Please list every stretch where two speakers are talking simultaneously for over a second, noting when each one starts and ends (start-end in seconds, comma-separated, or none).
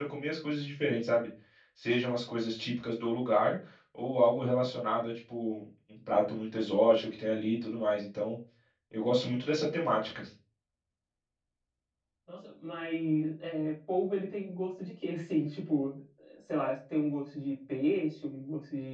none